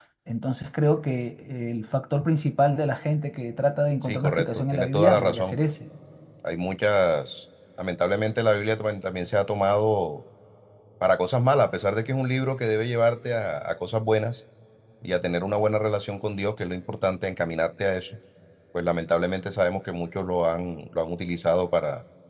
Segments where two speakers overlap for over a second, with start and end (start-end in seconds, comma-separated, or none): 4.0-5.6